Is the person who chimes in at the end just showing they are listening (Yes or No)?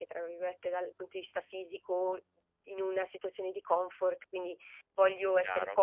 Yes